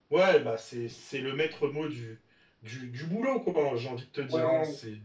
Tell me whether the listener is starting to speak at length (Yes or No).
Yes